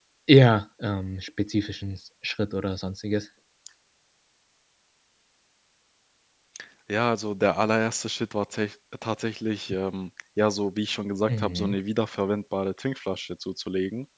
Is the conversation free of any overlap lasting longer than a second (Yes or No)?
Yes